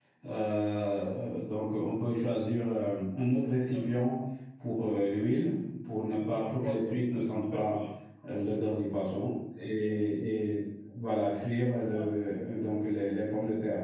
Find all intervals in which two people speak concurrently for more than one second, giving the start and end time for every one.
6.2-7.8

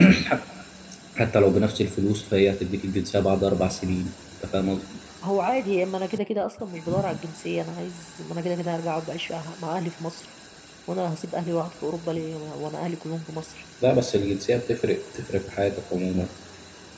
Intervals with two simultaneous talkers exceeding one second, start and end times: none

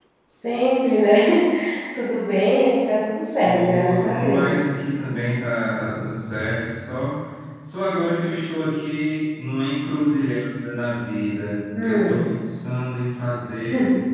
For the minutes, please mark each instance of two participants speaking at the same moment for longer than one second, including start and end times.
3.4-4.7

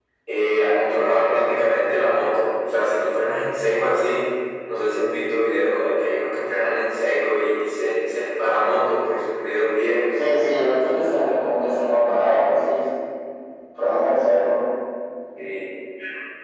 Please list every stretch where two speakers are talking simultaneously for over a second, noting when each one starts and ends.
none

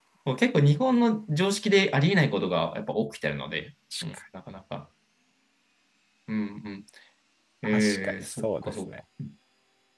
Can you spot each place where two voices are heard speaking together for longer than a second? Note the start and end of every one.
7.6-8.9

